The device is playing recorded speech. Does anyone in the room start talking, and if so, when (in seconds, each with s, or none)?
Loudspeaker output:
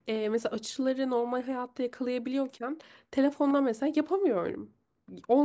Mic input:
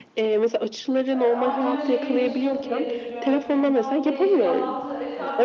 1.1 s